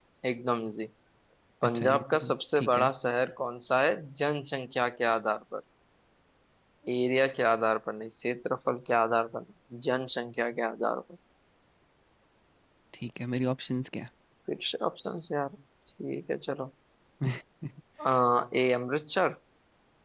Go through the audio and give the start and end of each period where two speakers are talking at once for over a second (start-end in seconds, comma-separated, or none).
1.6-2.9